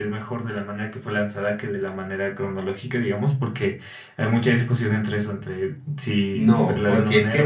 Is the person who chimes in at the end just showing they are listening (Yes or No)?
No